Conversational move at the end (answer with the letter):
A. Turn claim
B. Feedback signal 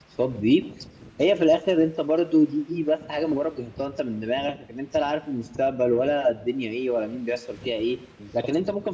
B